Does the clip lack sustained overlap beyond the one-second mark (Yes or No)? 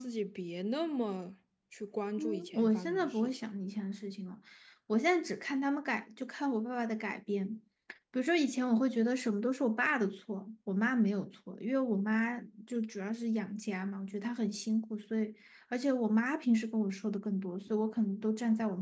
No